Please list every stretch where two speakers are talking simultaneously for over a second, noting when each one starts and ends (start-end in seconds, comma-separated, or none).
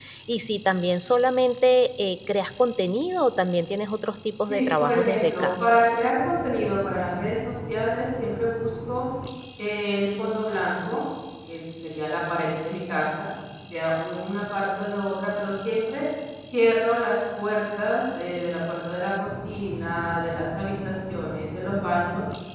4.5-5.7